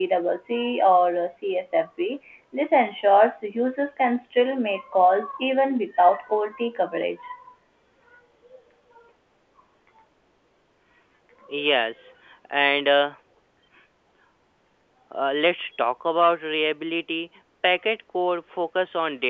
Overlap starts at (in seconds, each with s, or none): none